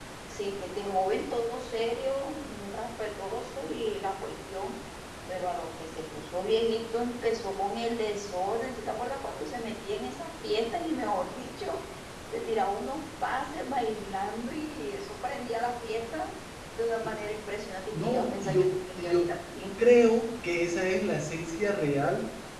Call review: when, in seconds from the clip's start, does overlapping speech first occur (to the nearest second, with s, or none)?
18 s